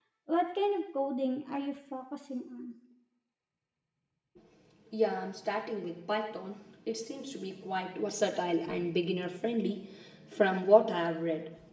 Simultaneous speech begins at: none

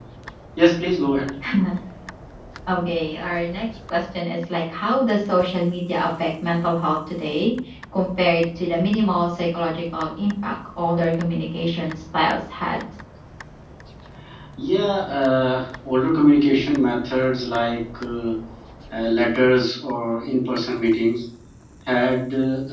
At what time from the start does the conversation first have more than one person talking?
none

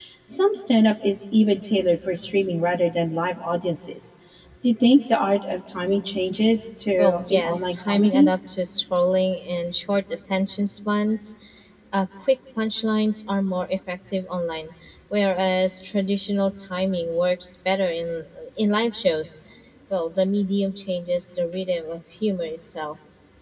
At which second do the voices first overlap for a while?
7.0 s

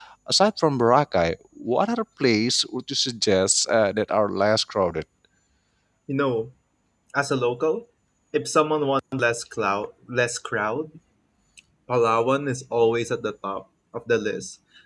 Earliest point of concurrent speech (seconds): none

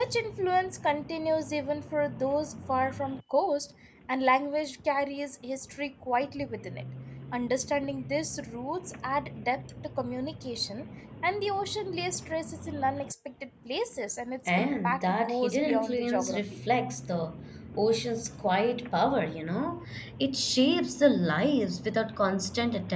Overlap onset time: 14.5 s

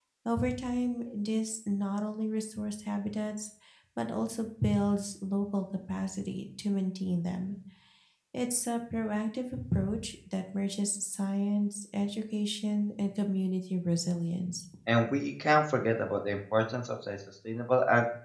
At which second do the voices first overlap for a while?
none

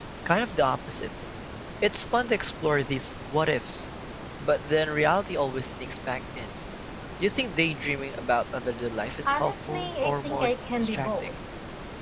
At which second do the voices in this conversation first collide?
9.2 s

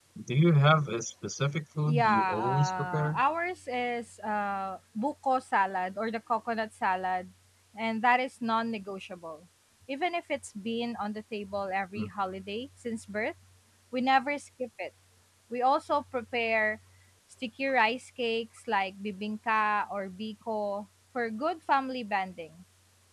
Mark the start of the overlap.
1.8 s

